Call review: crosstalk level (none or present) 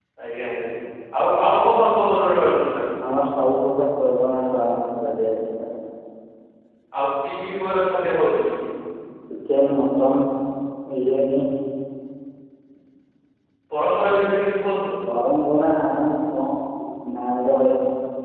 none